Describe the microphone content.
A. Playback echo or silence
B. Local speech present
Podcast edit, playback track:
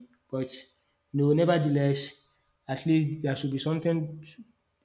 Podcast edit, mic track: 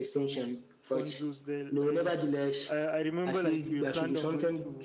B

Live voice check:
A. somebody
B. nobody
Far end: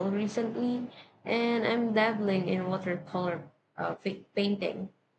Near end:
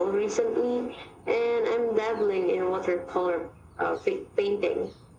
B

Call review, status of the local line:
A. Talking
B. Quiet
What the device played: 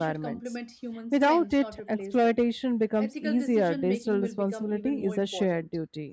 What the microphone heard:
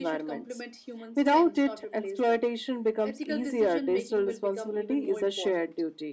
B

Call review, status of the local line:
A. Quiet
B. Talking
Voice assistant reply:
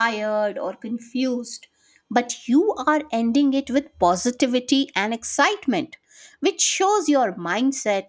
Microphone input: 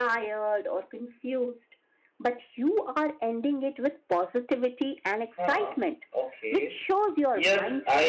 B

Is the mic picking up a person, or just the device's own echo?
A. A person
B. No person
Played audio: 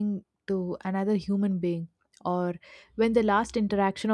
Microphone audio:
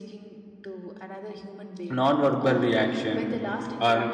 A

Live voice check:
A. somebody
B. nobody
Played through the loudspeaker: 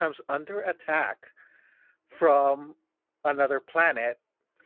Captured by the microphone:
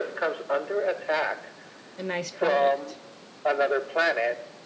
A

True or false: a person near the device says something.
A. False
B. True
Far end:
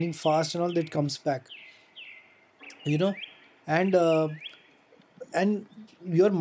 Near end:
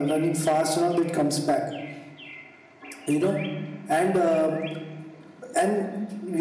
A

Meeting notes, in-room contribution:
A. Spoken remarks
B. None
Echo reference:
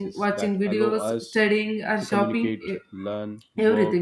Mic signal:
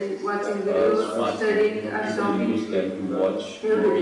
A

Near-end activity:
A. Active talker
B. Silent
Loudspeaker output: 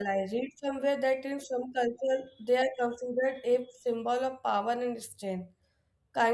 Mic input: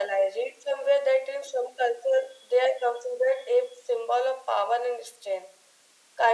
B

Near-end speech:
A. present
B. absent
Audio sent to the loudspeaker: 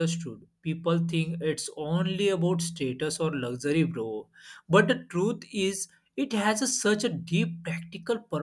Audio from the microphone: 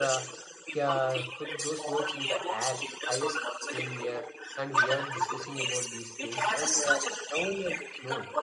A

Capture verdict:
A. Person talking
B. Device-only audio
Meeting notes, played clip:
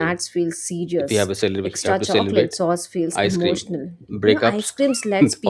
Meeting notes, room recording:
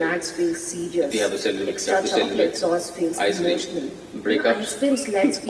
B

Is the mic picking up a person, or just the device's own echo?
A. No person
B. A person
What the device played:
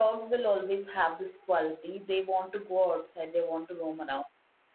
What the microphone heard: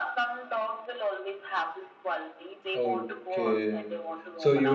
B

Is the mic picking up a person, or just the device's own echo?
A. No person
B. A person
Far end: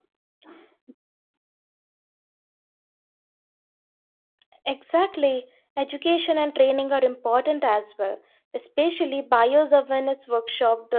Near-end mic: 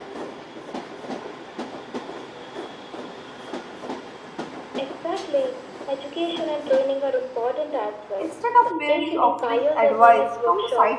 B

